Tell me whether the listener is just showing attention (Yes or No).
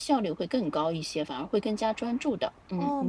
No